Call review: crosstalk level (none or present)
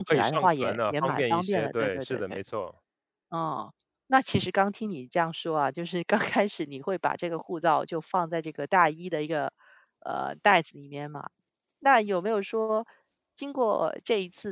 present